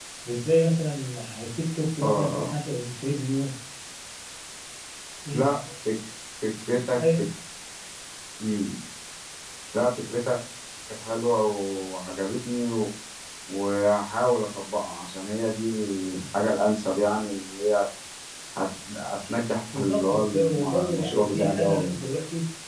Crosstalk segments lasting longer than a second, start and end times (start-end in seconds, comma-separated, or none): 19.7-22.0